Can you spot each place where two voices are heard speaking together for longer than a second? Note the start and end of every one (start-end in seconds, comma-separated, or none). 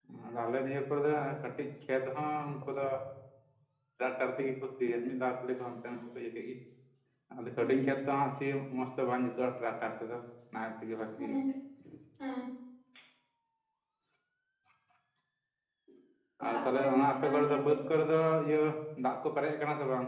16.4-17.7